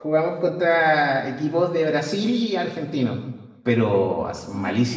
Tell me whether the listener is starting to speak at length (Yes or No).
No